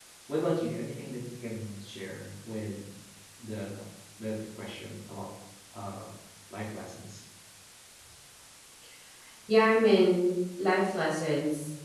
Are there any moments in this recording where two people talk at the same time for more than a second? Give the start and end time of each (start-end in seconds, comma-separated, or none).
none